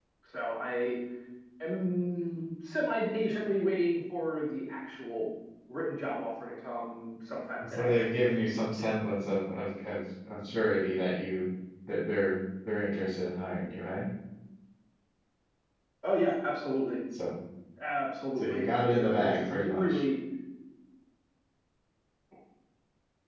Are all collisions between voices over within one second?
No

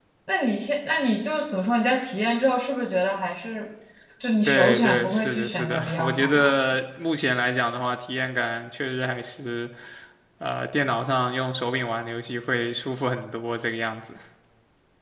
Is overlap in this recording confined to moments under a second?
No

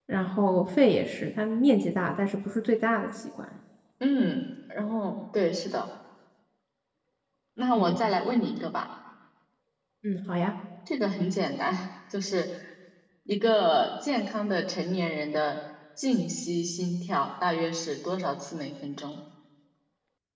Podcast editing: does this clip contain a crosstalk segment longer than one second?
No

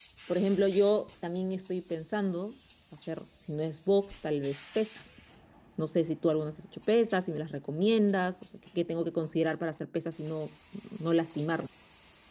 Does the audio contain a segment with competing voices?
No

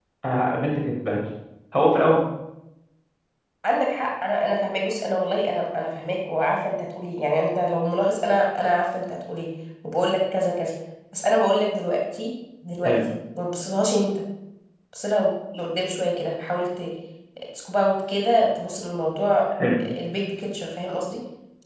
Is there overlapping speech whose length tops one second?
No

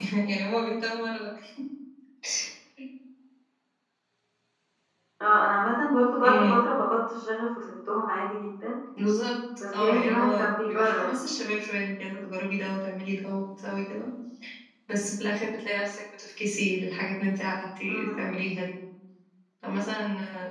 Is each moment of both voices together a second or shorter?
No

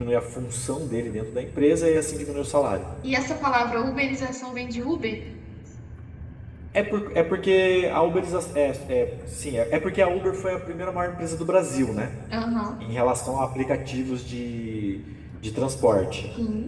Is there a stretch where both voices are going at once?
No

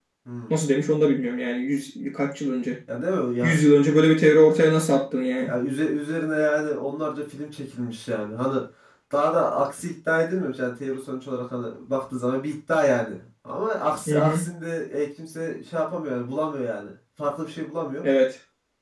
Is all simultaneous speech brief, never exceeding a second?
Yes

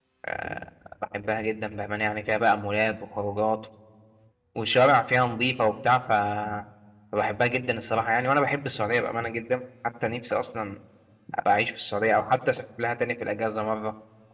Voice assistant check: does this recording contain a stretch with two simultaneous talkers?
No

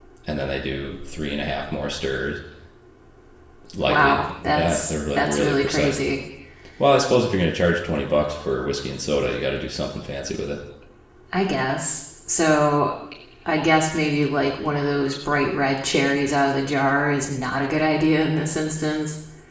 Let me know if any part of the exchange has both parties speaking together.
Yes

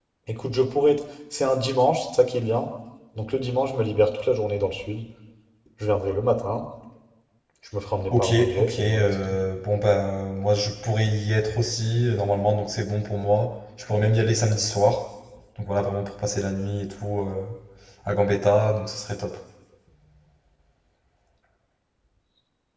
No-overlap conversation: No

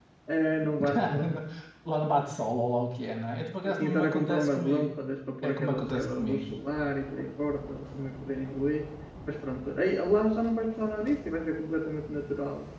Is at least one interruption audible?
Yes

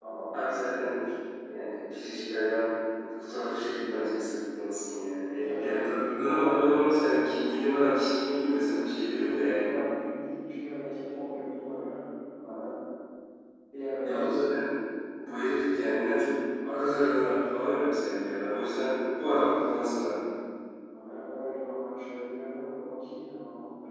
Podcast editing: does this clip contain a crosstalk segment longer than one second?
Yes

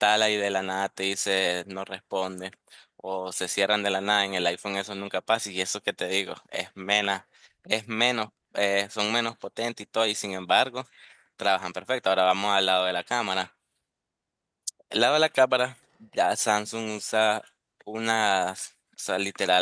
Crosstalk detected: No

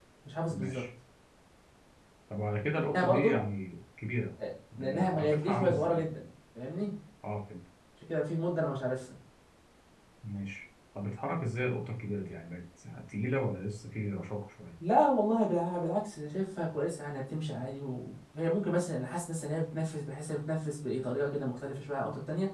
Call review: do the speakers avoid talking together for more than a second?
No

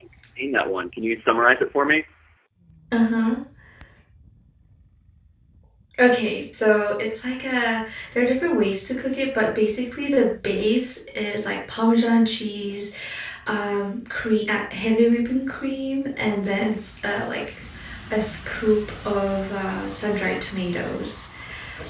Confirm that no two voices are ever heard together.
Yes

